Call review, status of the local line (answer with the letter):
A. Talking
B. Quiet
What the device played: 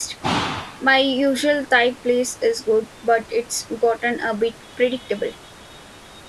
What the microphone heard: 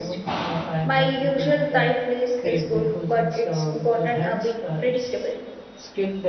A